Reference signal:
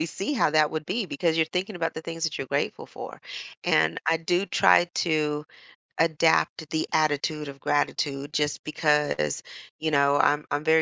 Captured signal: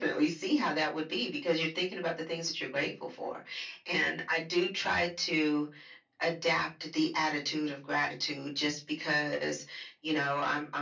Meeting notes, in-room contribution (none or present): none